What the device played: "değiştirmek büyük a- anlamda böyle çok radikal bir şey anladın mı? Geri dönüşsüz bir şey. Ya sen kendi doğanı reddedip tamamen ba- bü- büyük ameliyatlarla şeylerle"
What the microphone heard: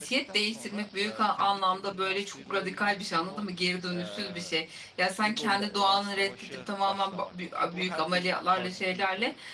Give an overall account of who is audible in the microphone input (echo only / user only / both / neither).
both